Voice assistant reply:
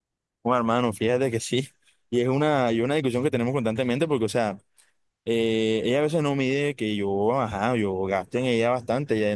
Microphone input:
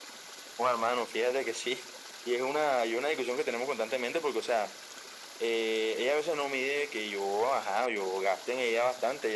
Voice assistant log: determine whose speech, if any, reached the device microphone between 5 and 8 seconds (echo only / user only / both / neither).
echo only